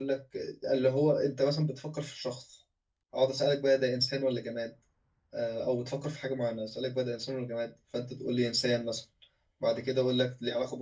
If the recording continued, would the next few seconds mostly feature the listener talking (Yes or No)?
No